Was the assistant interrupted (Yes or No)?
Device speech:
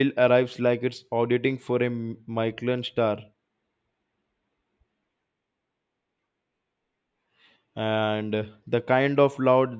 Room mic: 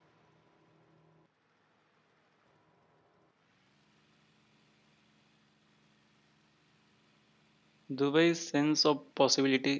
Yes